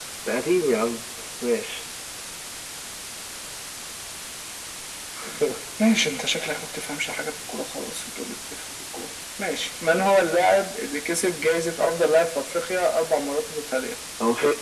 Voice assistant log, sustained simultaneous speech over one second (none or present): none